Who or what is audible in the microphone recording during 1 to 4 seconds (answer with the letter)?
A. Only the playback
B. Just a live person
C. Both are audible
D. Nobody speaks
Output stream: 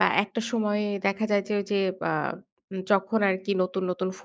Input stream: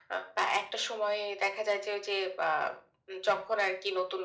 A